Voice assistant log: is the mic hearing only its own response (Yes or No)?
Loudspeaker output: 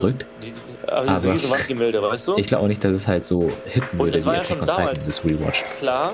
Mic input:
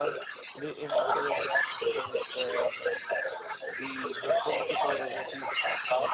No